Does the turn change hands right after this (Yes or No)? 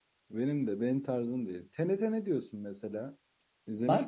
Yes